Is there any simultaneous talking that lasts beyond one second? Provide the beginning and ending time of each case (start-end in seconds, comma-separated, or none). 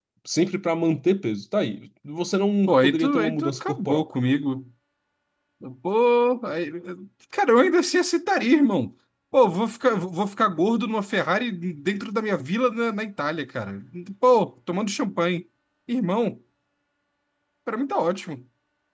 2.7-4.0